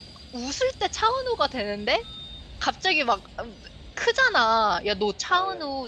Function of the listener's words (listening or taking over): listening